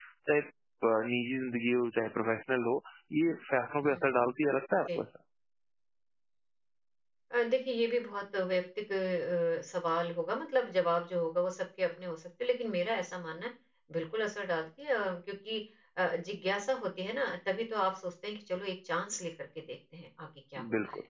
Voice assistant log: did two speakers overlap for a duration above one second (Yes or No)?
No